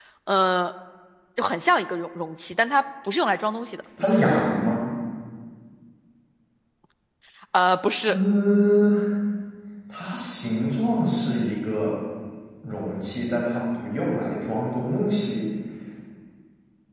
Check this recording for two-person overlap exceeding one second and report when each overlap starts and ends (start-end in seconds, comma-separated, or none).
none